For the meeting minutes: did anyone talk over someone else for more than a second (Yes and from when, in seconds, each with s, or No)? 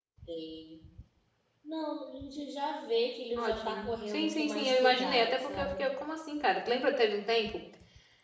Yes, from 3.4 s